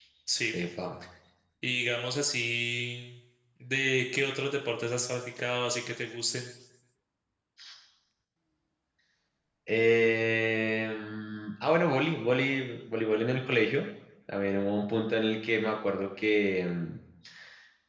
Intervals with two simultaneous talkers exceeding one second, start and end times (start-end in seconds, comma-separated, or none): none